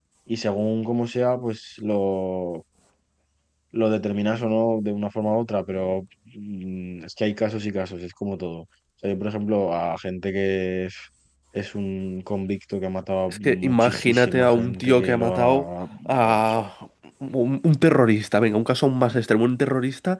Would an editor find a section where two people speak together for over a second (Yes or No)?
Yes